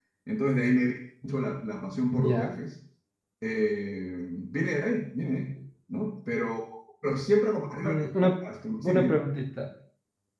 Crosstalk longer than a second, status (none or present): none